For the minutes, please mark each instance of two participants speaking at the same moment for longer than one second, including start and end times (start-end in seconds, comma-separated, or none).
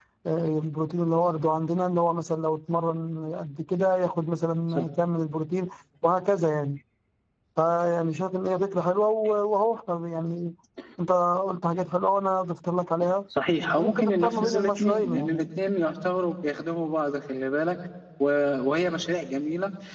13.8-15.5